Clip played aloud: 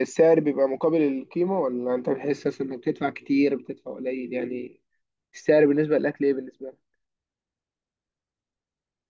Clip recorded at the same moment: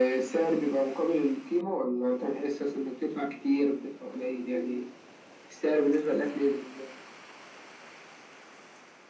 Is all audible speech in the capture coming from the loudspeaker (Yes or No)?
Yes